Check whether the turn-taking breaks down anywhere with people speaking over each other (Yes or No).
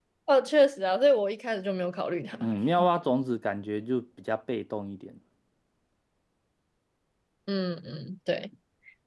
No